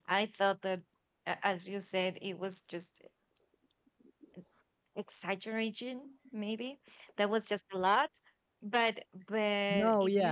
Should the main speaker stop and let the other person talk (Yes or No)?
No